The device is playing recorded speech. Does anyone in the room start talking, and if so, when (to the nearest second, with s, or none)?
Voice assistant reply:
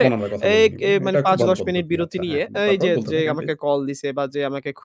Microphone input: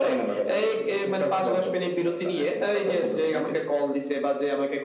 none